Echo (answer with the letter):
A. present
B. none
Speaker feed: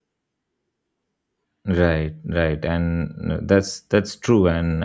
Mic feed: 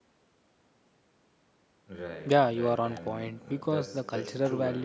A